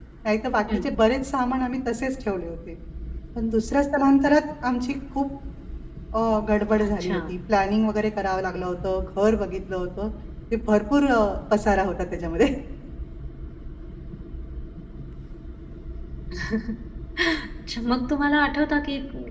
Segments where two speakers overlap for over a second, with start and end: none

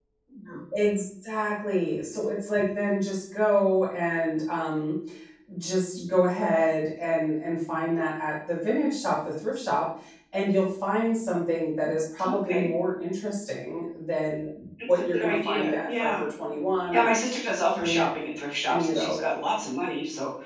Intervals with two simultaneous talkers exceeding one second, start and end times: 14.9-16.2

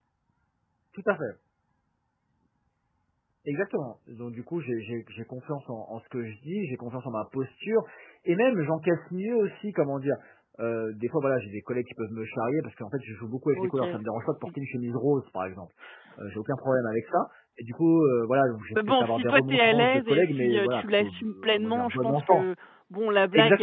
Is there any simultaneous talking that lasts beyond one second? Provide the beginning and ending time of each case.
18.8-22.4

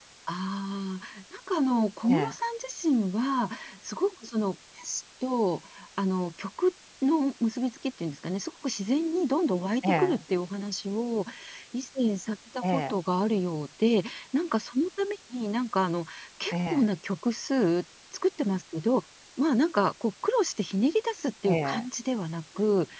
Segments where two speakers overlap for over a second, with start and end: none

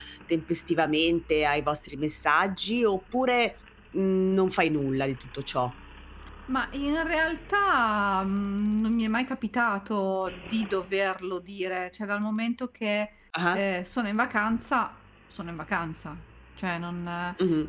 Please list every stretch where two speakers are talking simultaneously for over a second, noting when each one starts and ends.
none

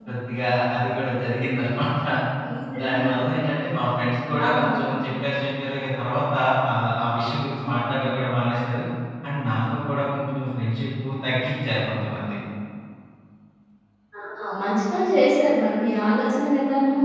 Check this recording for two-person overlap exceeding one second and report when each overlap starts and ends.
none

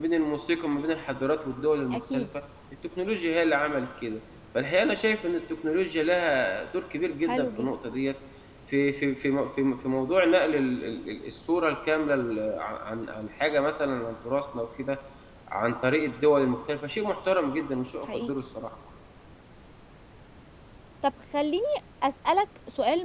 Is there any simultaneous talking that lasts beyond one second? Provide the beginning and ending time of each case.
none

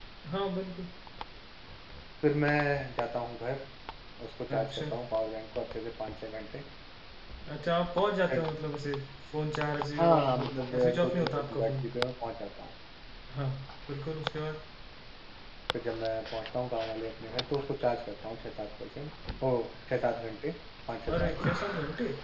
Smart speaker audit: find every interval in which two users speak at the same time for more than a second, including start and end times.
10.0-11.9

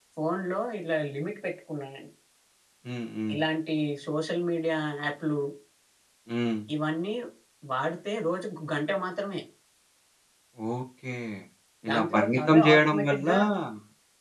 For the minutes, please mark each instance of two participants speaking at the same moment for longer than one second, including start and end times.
11.9-13.2

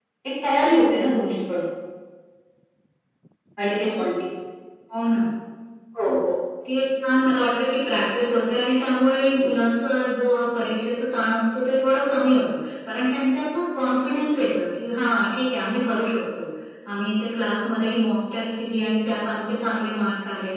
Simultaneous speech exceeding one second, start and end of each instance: none

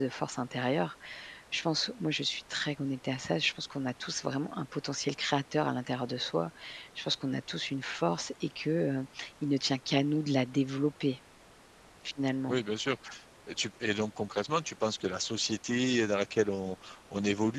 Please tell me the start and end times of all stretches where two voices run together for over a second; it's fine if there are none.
none

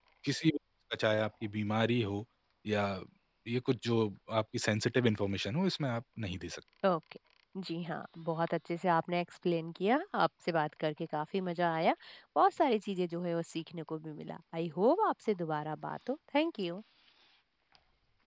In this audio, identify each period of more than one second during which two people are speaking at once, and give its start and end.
none

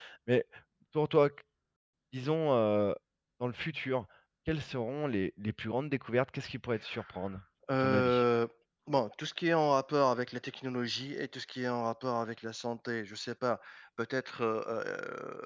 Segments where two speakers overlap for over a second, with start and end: none

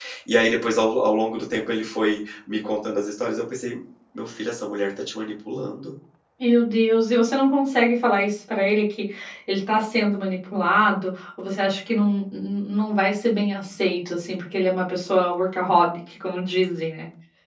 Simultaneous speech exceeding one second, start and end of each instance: none

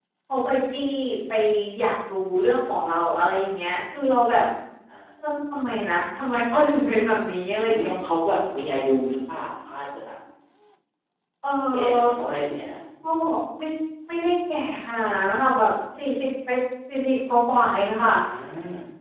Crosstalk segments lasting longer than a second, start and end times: none

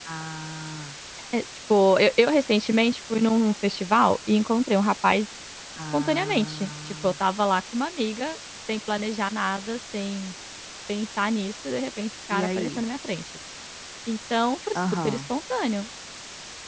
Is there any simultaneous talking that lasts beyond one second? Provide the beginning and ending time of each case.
5.9-7.1

